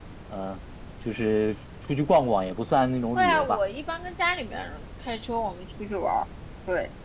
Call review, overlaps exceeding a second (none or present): none